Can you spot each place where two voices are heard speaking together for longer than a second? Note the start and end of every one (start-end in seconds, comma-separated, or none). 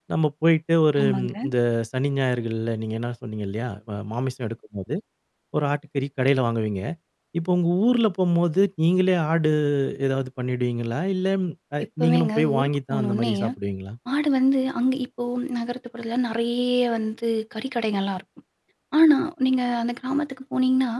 12.0-13.3